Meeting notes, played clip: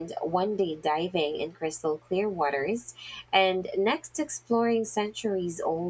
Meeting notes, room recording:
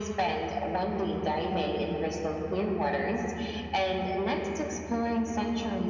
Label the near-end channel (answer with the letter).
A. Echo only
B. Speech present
A